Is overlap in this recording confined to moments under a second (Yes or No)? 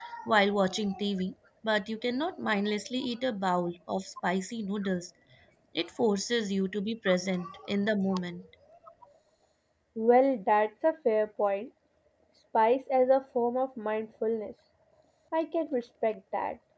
Yes